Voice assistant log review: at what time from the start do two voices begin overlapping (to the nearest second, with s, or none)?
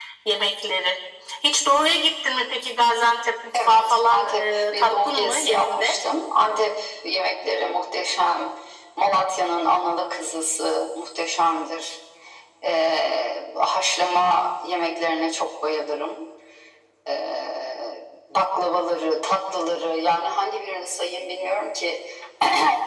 4 s